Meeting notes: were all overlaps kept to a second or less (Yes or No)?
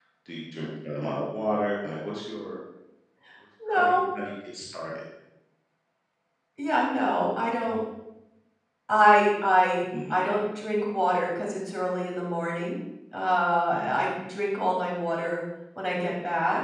Yes